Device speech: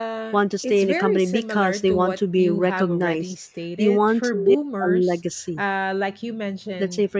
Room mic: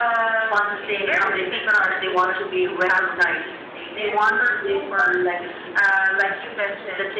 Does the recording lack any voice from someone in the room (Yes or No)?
Yes